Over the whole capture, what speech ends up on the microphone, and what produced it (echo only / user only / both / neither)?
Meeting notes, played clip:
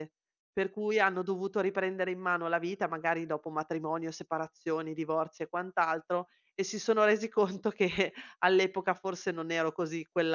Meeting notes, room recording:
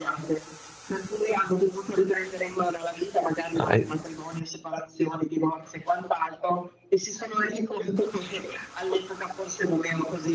both